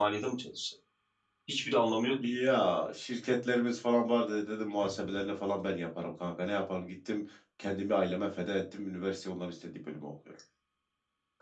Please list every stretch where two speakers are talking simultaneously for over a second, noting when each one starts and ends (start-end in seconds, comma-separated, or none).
none